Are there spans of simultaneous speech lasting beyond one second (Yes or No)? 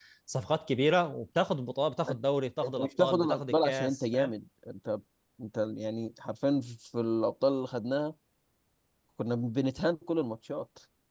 Yes